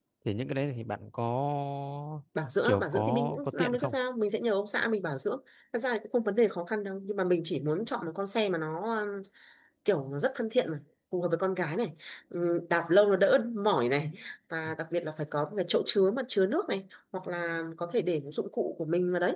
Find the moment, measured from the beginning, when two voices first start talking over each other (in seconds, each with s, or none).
2.6 s